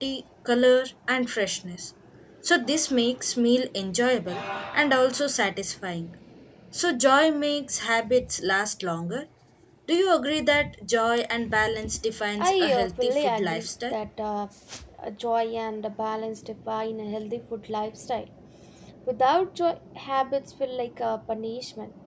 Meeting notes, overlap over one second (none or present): present